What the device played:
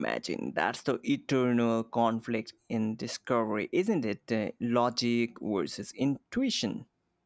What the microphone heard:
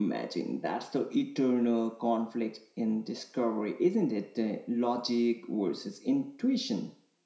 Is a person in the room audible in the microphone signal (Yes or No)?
No